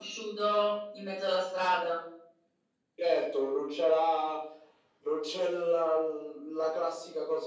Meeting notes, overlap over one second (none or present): none